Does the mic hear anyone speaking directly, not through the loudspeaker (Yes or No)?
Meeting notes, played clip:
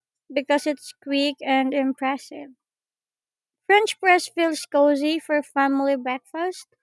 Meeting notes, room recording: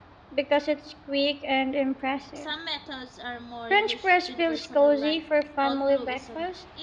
Yes